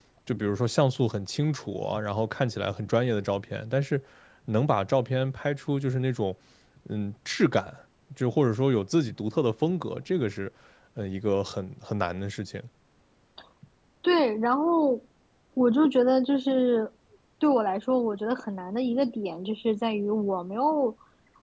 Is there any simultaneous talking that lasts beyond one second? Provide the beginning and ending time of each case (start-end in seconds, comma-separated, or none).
none